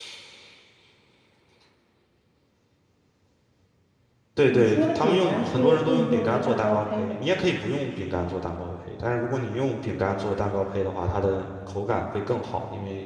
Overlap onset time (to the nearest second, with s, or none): 5 s